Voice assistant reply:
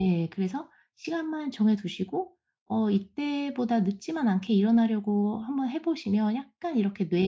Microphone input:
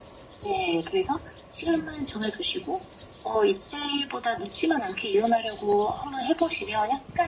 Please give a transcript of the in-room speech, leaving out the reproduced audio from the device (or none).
none